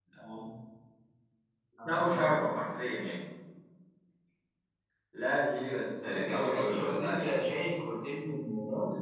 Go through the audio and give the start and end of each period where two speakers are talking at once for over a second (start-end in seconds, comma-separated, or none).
6.0-7.3